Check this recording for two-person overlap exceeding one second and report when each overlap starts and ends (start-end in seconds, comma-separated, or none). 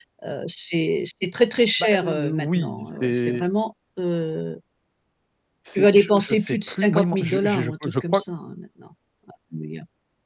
1.8-3.4, 5.8-8.2